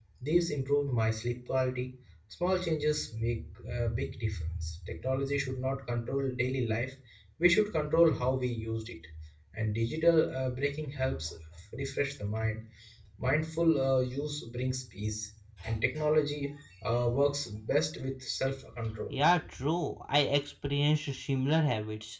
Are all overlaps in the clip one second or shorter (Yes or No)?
Yes